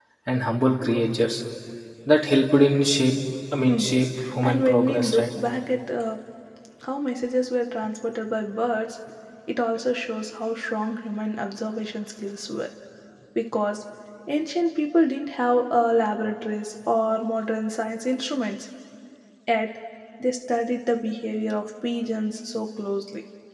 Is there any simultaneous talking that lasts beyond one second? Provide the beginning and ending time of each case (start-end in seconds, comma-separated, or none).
3.6-5.2